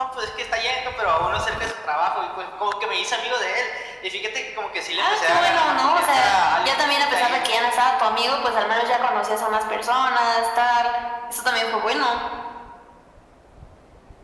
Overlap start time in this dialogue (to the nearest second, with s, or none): 5 s